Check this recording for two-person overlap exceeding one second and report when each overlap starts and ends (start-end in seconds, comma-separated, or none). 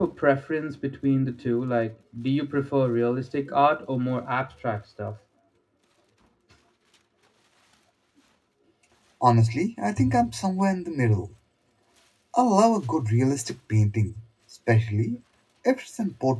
none